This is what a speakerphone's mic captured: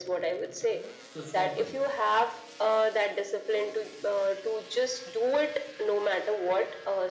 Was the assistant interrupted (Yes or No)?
Yes